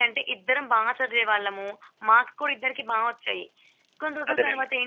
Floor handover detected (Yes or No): No